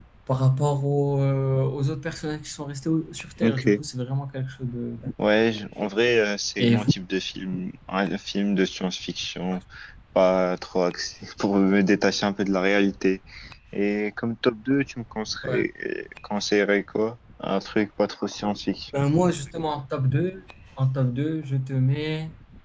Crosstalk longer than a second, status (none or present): none